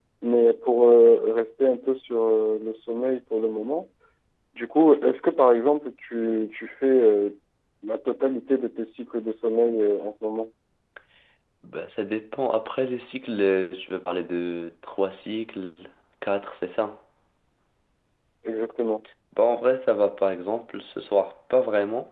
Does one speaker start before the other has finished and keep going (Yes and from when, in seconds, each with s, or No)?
No